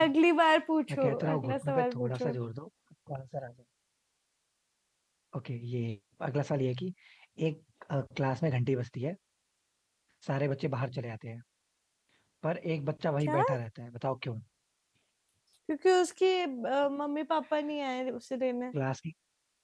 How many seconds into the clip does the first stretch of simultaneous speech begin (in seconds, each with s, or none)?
0.9 s